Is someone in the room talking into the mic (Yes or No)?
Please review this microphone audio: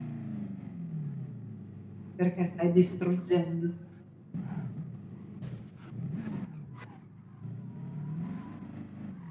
Yes